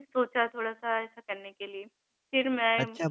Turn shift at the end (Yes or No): Yes